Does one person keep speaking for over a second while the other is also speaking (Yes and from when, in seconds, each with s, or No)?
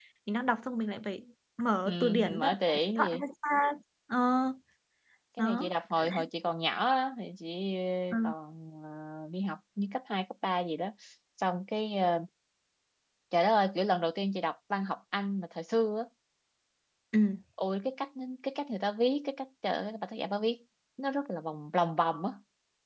Yes, from 1.8 s